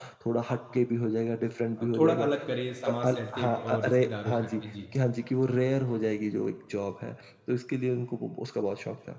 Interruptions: present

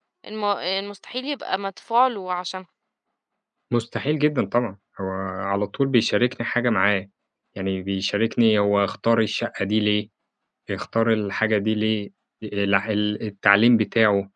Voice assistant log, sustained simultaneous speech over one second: none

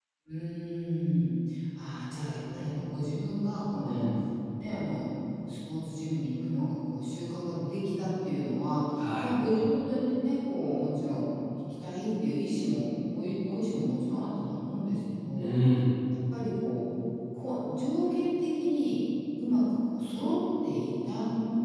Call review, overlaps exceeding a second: none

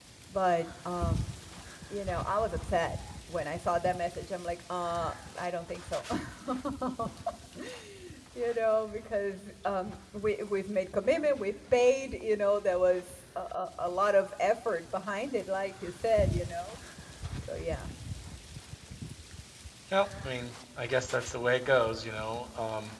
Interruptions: none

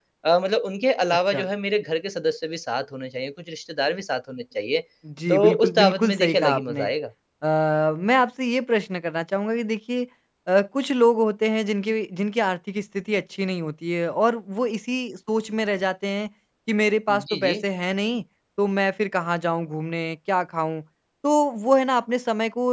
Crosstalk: present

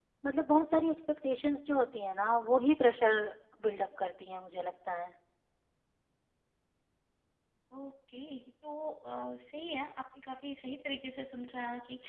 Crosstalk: none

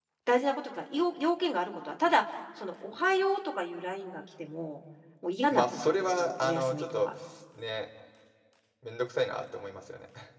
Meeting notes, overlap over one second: present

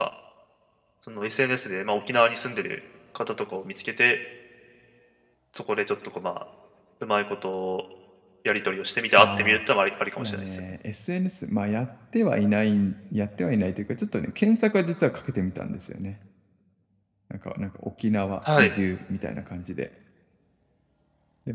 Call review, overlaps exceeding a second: none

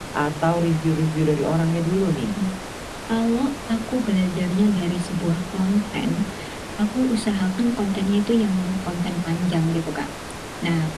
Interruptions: none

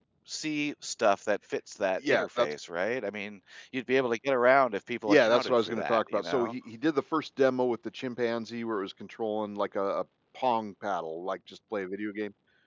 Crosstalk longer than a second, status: present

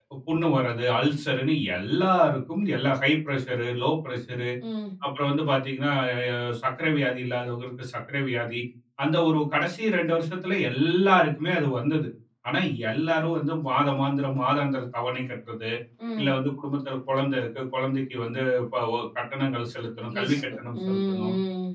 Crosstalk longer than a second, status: present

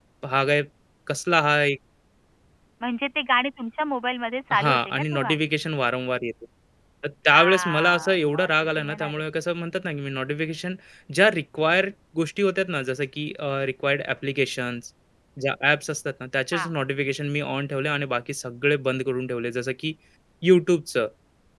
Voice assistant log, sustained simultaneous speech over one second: present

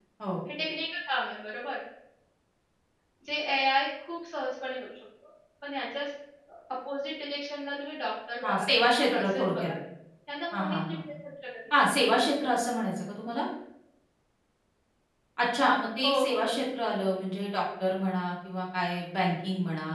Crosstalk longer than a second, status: present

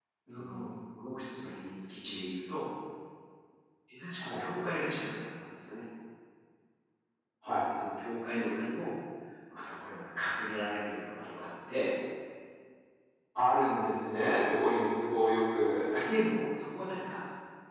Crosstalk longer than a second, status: none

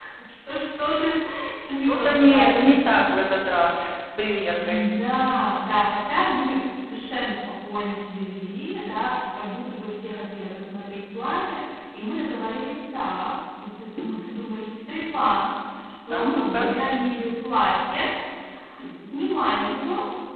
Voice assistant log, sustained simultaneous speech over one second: present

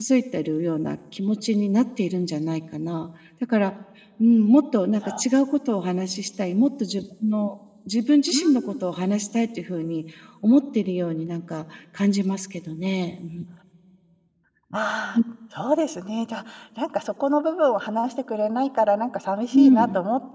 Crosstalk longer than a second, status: none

